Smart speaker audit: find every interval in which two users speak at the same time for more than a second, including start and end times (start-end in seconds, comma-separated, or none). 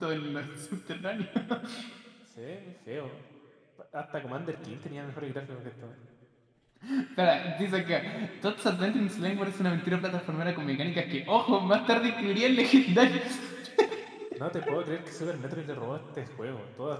none